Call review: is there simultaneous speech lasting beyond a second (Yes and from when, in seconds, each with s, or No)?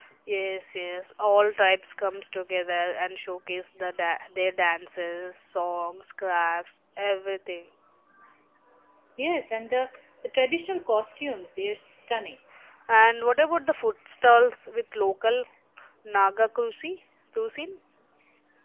No